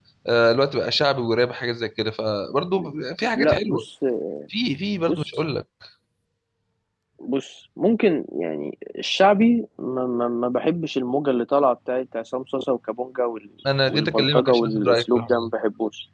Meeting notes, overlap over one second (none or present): present